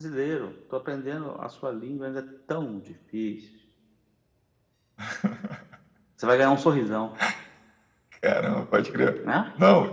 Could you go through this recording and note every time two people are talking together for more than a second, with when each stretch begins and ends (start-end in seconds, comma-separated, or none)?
none